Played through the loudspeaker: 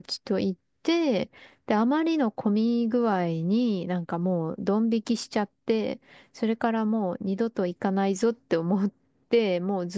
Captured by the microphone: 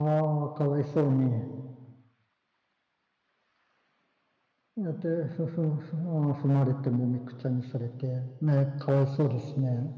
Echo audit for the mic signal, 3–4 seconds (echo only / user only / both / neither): neither